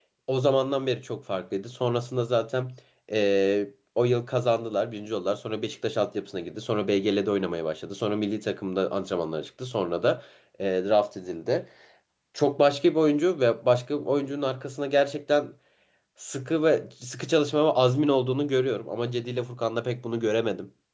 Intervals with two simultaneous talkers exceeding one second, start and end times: none

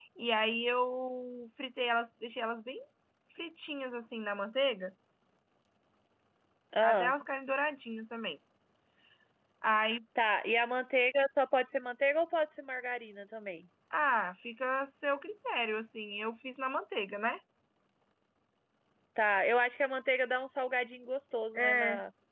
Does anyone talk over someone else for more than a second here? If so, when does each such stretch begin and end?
none

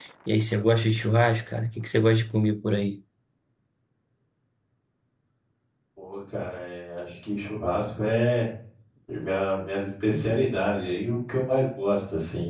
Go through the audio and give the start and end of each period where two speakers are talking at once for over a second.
none

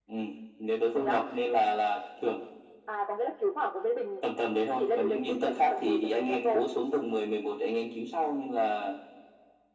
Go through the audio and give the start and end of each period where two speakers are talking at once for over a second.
4.8-6.6

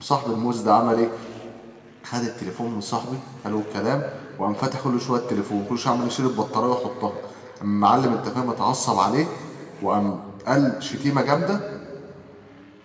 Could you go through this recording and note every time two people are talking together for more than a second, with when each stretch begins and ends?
none

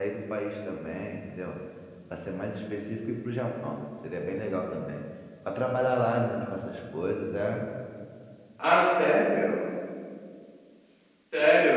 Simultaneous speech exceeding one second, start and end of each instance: none

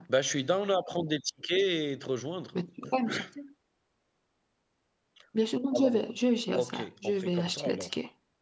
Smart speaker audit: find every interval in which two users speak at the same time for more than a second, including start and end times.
6.5-7.9

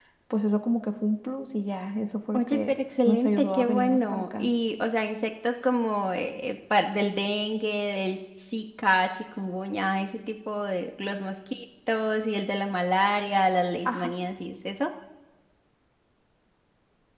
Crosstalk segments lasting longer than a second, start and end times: 2.3-4.5

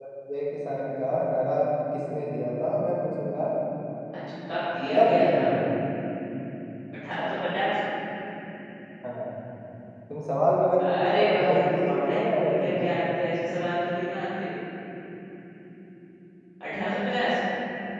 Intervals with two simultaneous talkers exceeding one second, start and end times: 10.9-12.9

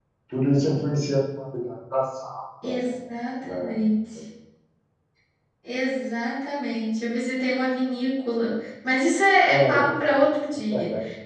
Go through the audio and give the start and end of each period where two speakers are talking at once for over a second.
none

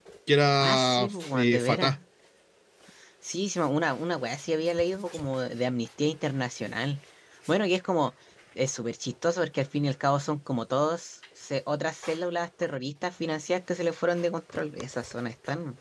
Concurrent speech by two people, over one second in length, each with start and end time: 0.6-1.9

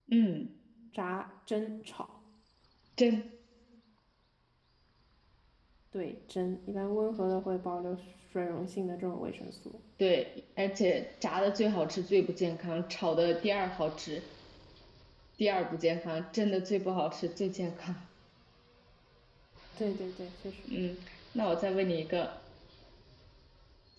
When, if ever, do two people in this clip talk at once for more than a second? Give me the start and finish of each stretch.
none

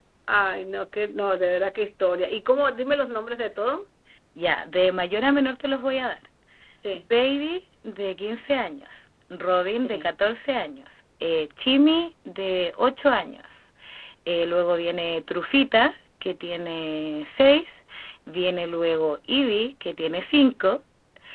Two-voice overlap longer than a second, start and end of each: none

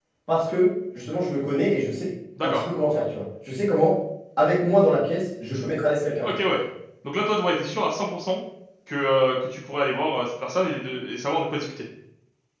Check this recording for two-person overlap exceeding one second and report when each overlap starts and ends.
none

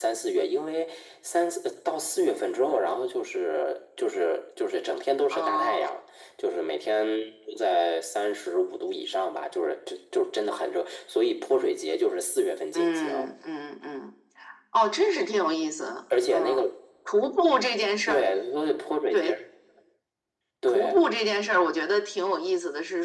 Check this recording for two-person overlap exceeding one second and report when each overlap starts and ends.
none

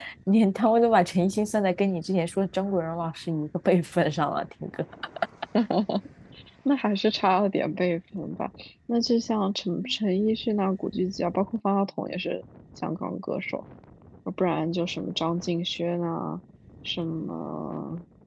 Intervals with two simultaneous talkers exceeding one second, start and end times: none

